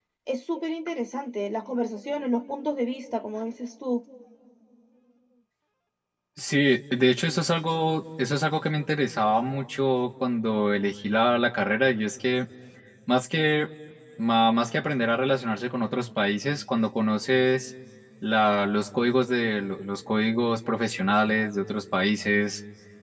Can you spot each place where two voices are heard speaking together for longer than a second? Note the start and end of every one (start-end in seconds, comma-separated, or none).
none